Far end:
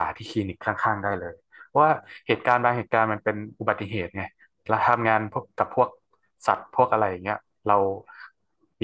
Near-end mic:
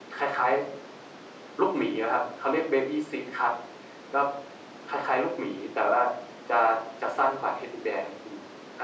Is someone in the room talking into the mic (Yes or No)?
Yes